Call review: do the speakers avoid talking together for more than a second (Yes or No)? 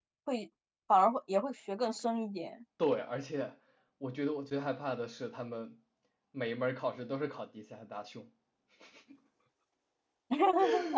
Yes